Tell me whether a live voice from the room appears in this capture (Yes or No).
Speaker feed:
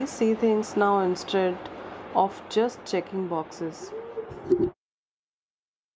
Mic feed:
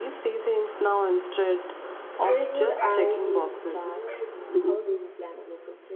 Yes